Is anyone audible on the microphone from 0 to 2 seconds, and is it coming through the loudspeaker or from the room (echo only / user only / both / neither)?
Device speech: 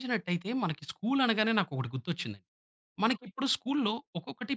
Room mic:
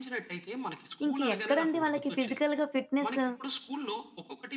both